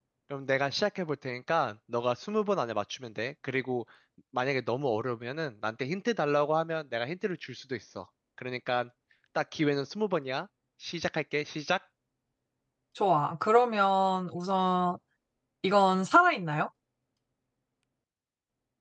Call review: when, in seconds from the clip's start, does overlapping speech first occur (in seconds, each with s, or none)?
none